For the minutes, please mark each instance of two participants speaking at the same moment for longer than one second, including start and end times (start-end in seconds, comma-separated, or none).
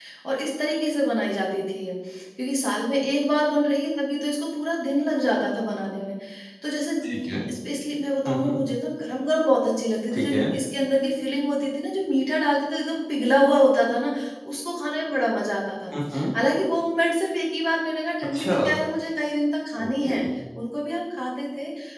none